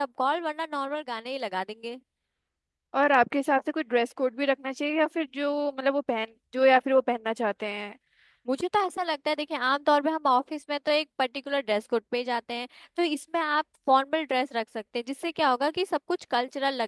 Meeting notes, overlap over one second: none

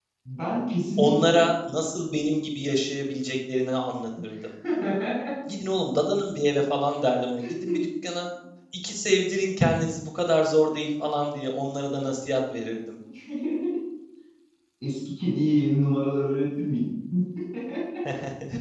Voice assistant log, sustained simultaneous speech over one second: none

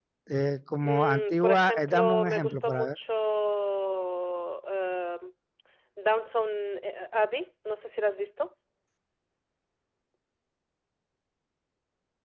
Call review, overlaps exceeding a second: present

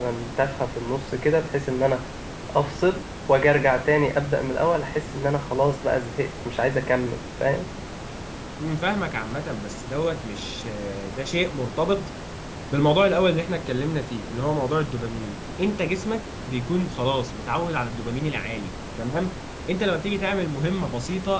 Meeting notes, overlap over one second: none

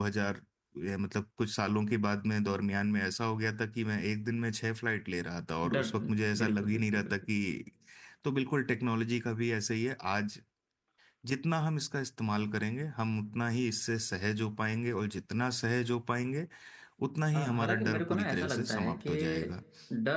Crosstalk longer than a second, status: present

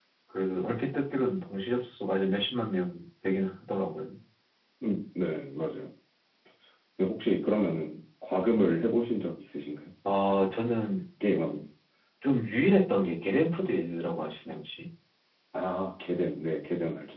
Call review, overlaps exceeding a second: none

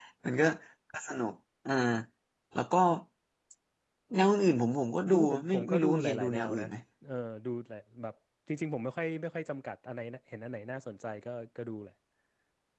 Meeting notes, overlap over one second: present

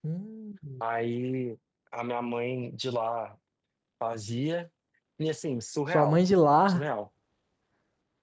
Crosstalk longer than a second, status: none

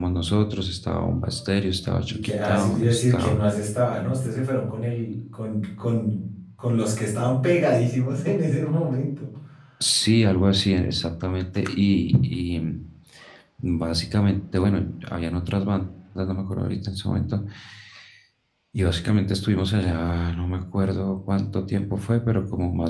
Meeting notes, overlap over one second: present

